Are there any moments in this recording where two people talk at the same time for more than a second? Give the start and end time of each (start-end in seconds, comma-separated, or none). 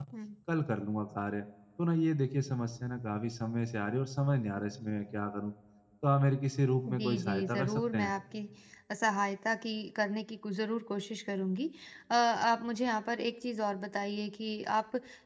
6.9-8.1